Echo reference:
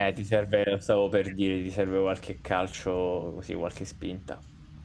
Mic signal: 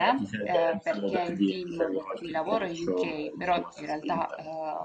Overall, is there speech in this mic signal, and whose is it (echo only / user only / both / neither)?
both